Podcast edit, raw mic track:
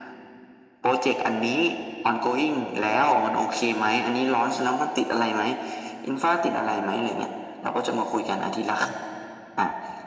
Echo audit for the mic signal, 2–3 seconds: echo only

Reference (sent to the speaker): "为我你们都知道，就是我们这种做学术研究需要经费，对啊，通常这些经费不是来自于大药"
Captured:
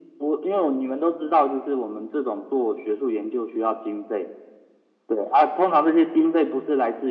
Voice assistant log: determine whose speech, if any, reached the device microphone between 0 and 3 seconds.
echo only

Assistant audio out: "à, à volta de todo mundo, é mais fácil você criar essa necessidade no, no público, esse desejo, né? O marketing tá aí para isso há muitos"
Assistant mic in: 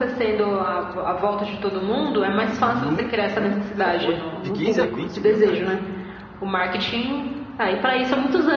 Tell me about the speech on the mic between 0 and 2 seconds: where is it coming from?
echo only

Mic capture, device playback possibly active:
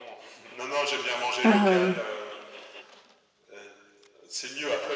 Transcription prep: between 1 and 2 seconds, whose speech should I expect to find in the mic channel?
both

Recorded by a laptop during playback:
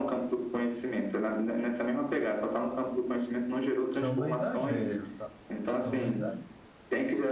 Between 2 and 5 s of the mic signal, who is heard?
both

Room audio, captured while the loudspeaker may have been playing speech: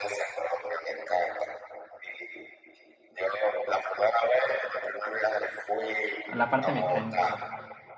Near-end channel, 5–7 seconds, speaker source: both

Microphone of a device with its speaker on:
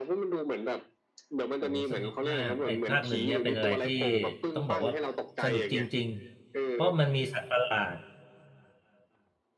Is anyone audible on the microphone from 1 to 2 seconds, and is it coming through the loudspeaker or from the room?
both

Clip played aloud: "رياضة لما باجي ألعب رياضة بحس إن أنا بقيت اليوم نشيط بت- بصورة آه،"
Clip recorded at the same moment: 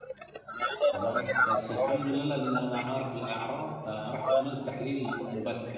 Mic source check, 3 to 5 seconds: both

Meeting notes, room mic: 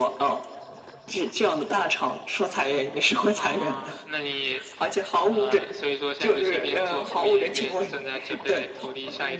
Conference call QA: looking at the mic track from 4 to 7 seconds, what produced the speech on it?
echo only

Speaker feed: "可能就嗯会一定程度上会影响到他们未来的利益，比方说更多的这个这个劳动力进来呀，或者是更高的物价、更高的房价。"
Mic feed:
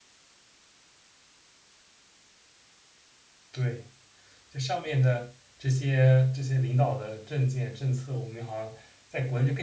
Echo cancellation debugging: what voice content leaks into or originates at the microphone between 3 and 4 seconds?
user only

